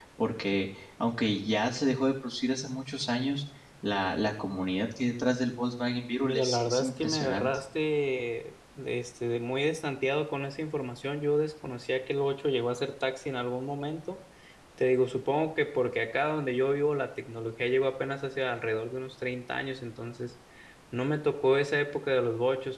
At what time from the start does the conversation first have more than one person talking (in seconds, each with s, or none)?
6.2 s